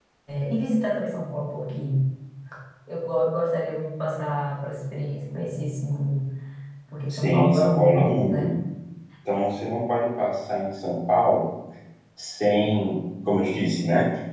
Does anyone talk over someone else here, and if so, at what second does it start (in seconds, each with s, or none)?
7.1 s